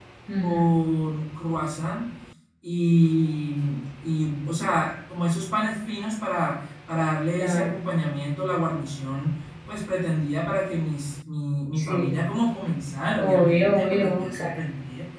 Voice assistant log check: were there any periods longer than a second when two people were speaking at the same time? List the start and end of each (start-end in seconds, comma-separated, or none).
13.2-14.5